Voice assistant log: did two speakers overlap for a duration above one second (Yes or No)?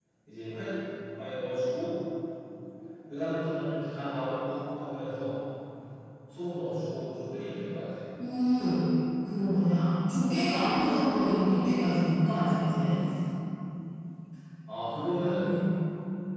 No